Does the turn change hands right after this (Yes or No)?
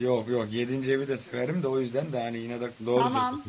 Yes